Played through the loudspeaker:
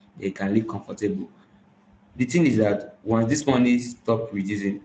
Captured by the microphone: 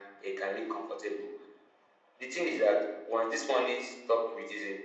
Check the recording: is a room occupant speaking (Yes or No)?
No